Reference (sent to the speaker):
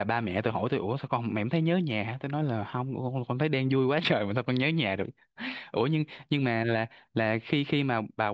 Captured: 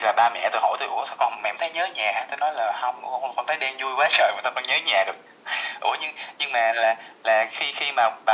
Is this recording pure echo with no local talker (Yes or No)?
Yes